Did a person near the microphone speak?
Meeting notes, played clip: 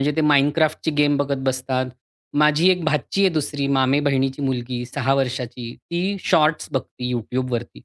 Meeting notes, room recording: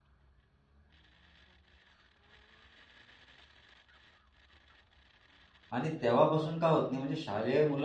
Yes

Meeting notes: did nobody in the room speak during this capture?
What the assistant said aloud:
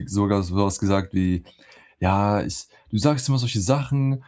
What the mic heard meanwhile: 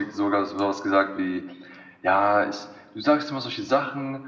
Yes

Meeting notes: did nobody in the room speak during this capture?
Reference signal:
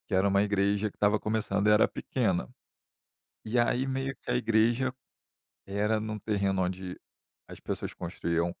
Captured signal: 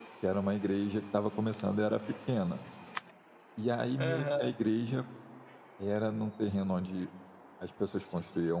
No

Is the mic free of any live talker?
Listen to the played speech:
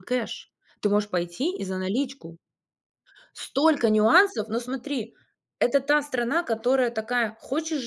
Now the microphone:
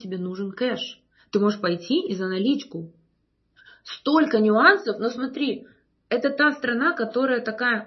Yes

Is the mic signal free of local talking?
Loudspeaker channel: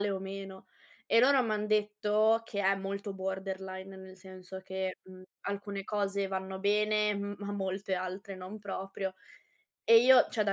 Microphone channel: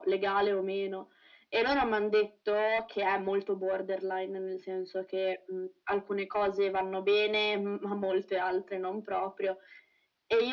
Yes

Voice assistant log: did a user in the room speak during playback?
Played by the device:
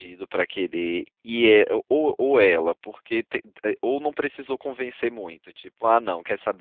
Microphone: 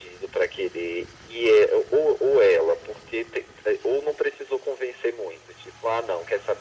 No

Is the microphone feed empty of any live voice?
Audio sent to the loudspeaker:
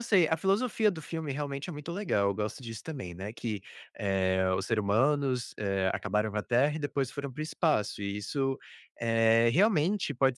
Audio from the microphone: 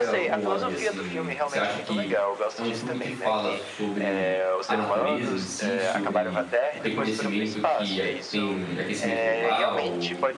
No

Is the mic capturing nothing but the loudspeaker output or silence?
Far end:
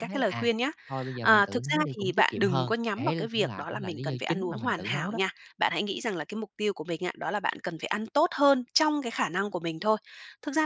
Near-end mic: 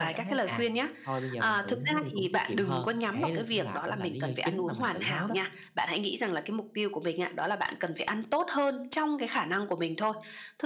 Yes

